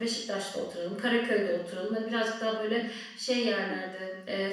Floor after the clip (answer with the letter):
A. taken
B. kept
B